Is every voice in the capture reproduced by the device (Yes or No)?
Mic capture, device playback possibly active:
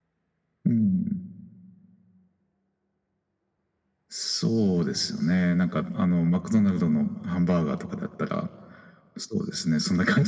Yes